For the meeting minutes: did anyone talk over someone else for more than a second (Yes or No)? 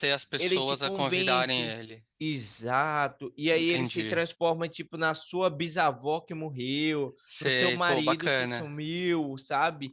Yes